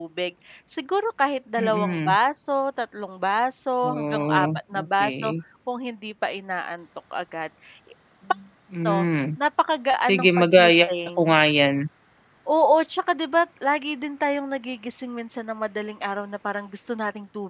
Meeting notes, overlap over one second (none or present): present